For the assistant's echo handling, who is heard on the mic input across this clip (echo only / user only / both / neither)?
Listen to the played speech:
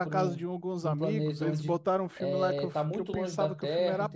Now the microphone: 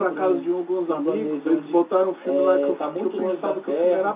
echo only